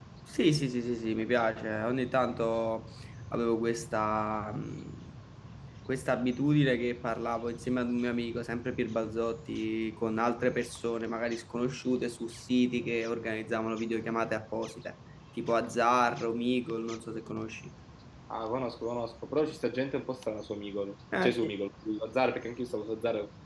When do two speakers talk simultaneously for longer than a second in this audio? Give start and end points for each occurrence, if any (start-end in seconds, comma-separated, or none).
none